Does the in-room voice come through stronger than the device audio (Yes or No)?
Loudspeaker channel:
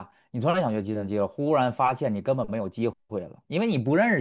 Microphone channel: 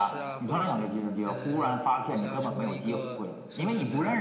No